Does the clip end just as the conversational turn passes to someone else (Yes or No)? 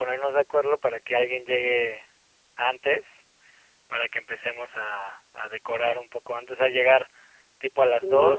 No